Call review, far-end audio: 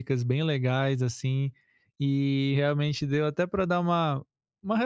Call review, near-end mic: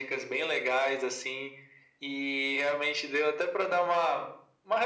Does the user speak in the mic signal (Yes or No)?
No